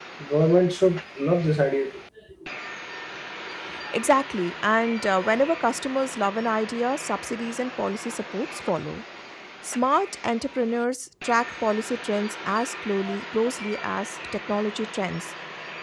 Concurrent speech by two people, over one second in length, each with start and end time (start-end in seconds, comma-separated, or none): none